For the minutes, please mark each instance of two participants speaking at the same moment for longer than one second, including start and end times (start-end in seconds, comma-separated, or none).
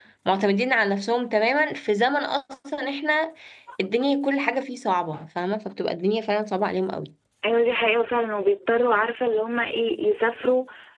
none